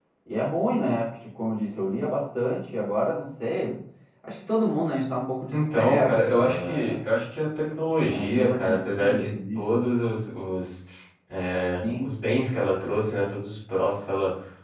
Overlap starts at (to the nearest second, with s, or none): 6 s